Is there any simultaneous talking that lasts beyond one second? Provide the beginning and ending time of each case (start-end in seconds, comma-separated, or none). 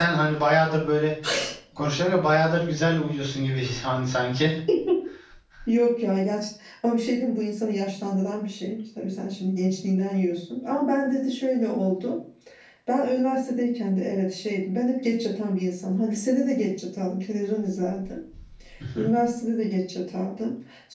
none